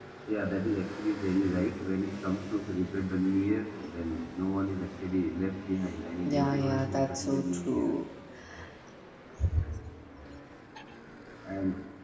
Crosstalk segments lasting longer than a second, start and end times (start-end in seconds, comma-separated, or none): 6.2-7.9